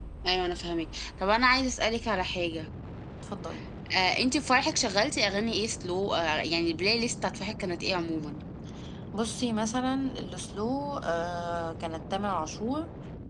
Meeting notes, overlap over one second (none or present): none